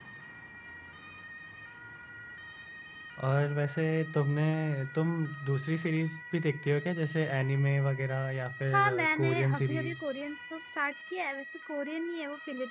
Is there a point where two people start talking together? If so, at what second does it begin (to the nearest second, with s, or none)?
9 s